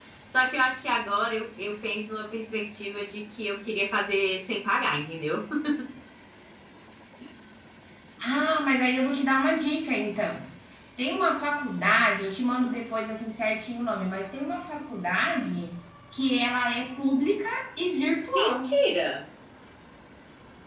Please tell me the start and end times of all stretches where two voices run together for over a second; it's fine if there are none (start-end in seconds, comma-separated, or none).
none